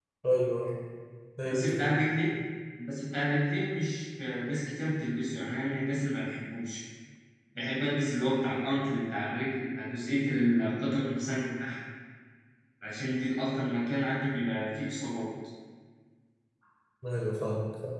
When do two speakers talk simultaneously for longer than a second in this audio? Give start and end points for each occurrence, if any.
none

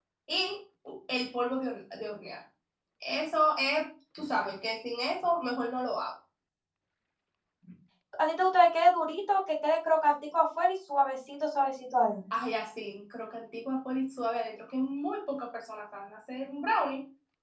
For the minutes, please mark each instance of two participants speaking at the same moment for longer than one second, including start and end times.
none

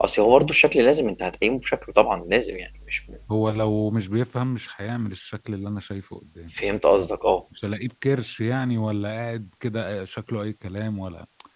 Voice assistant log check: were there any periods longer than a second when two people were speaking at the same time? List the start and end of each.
none

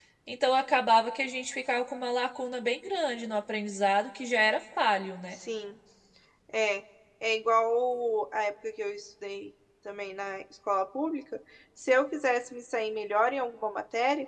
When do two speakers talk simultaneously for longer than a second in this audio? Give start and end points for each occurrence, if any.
none

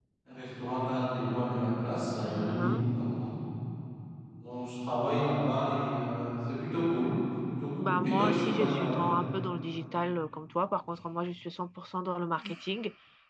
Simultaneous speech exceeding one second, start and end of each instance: 7.8-9.1

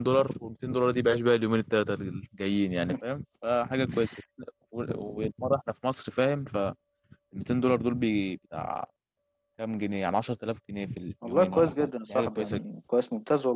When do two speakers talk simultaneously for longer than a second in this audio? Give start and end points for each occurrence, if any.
11.3-12.6

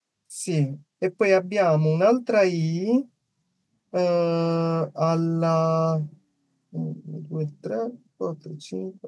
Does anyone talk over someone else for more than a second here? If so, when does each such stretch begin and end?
none

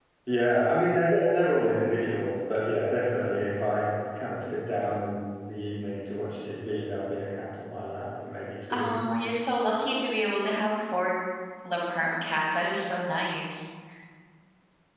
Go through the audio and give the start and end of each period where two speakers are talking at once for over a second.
none

